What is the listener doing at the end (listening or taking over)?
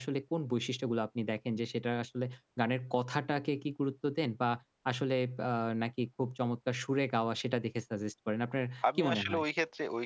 taking over